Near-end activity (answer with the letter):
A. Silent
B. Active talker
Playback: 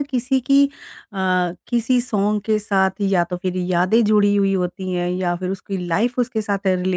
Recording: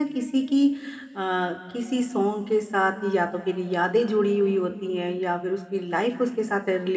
A